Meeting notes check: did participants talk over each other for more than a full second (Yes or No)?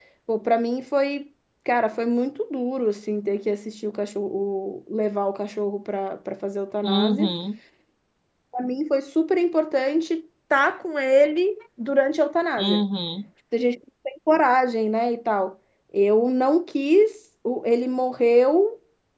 No